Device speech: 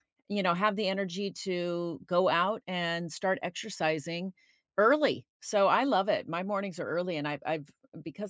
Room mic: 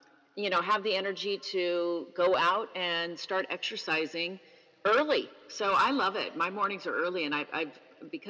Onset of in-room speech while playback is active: none

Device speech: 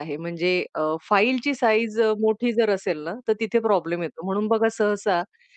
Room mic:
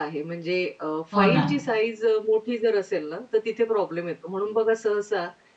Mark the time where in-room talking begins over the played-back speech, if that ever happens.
1.1 s

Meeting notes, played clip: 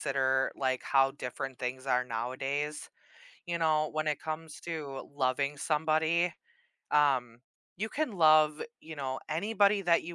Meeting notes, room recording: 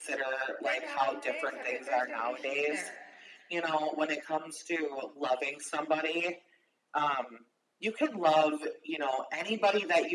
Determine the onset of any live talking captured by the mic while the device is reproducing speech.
0.6 s

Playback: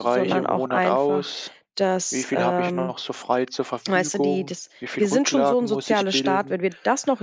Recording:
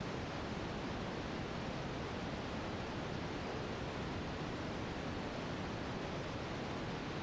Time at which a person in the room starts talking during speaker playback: none

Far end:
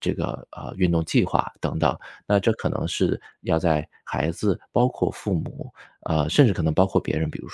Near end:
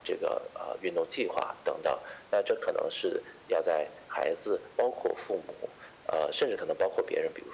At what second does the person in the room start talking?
none

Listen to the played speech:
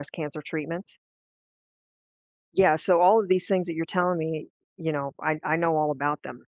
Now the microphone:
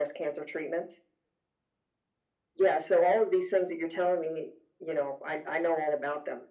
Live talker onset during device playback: none

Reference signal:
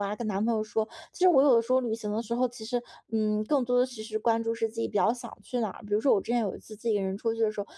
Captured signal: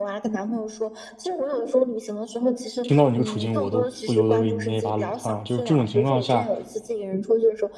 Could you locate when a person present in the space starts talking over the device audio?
2.8 s

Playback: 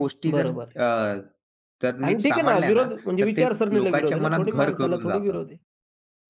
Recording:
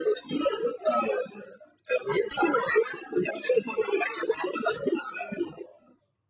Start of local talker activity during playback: none

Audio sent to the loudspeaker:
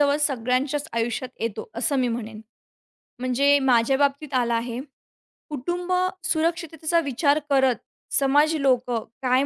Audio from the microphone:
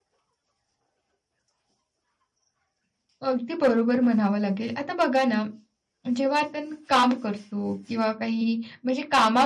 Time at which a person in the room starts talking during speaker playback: 3.3 s

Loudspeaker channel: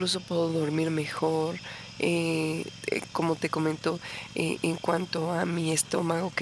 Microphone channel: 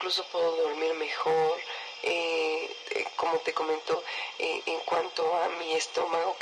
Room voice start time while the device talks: none

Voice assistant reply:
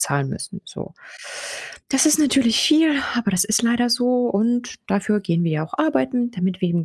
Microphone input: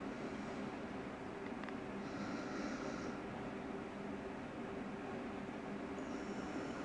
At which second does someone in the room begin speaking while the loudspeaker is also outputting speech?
none

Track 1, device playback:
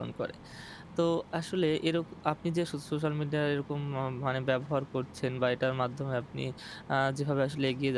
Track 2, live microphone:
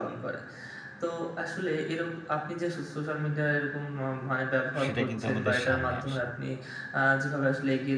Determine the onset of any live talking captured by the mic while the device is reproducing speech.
4.8 s

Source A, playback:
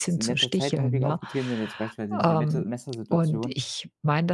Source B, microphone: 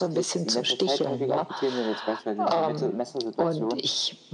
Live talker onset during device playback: none

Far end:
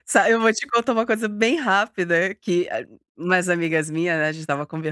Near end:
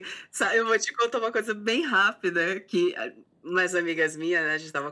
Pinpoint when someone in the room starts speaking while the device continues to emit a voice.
none

